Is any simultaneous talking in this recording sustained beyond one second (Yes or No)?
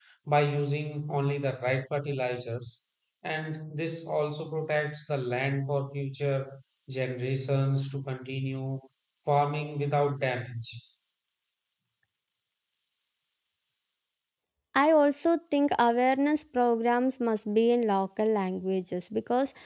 No